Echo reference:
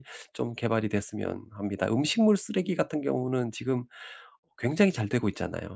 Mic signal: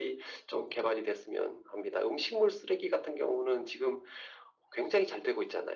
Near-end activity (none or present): none